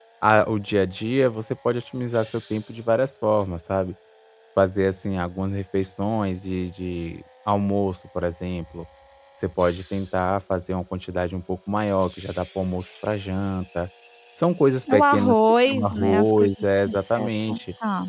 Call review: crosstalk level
present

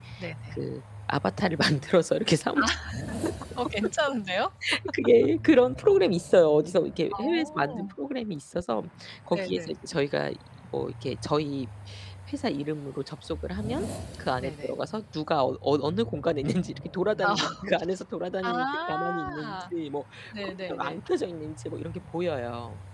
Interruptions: present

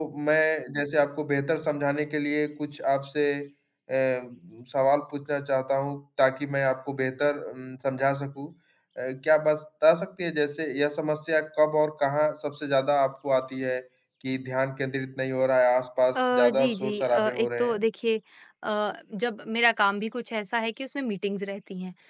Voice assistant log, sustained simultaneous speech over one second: present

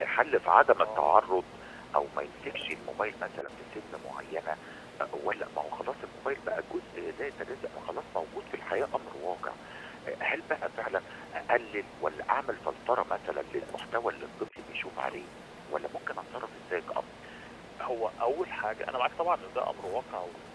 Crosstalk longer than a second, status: none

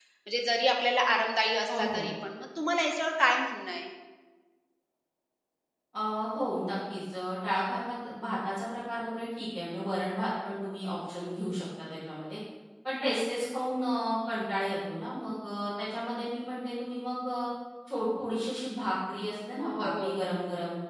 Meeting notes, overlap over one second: none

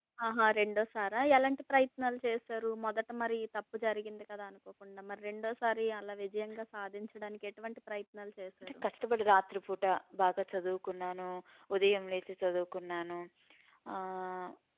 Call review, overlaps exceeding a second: none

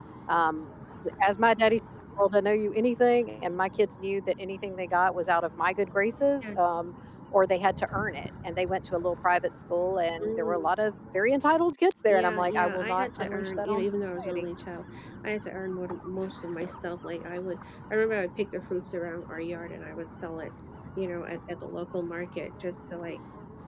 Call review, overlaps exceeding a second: present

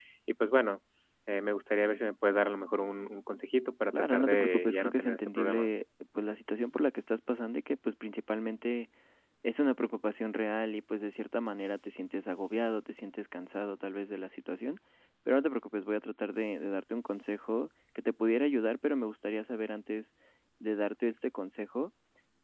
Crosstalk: present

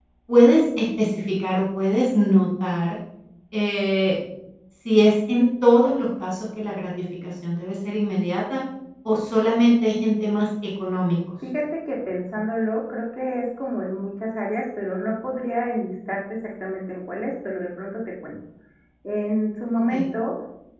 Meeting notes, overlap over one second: none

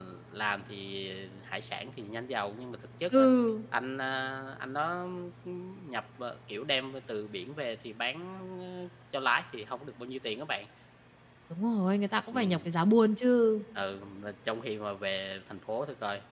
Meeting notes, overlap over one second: none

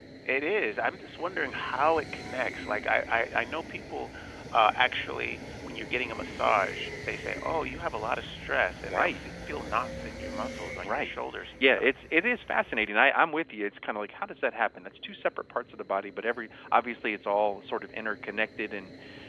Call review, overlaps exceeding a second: none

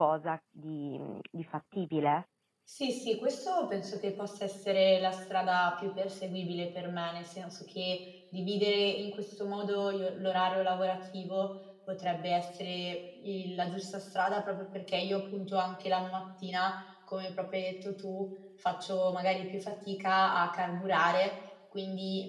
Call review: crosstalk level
none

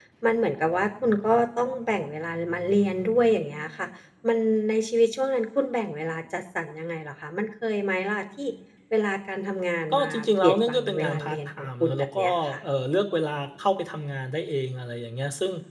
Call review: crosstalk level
present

